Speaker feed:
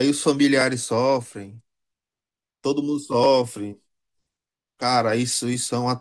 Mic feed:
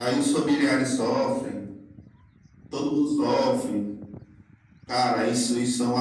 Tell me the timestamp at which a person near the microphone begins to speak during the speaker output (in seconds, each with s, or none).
none